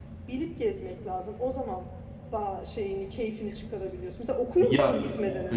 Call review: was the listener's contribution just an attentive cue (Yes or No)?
No